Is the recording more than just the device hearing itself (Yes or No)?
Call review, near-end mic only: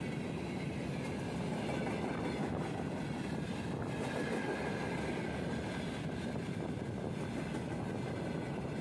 No